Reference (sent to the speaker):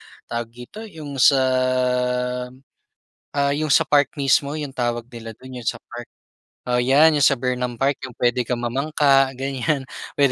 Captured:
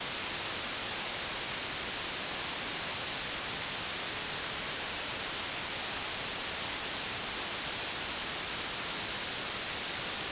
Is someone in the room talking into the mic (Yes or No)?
No